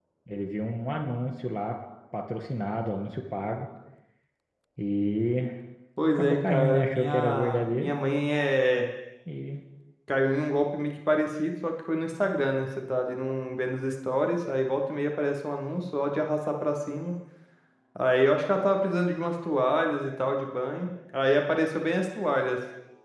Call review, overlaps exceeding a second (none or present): present